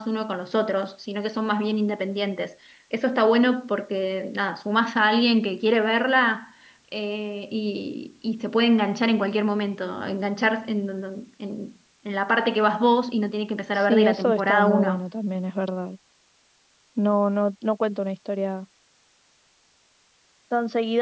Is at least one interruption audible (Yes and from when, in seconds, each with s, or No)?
Yes, from 13.7 s